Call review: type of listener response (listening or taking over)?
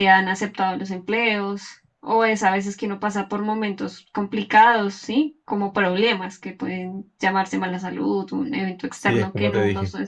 taking over